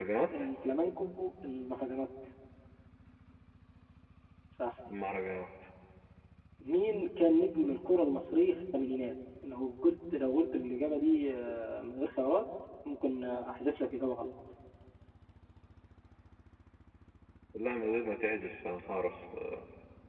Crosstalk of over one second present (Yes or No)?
No